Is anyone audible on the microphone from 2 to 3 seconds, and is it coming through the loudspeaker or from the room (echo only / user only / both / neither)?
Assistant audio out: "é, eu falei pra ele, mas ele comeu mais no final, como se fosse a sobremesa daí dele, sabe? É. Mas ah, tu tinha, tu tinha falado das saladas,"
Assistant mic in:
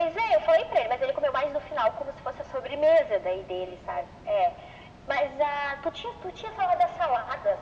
echo only